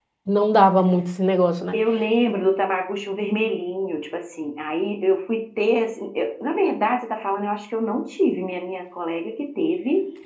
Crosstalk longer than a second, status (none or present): none